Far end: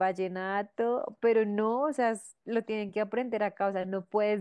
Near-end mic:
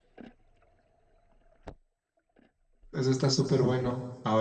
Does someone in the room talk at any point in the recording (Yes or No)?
Yes